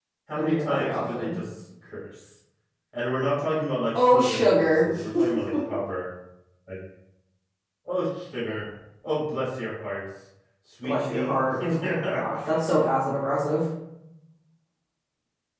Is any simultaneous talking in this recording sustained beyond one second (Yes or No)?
Yes